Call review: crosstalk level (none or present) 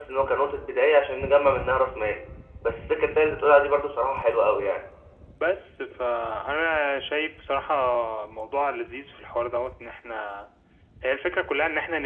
none